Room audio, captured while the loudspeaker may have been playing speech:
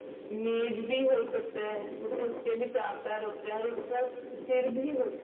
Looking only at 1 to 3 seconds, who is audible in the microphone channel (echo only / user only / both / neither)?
echo only